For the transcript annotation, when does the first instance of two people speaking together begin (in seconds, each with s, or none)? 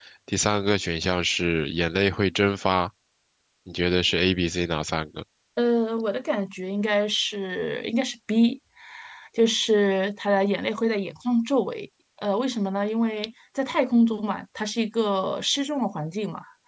none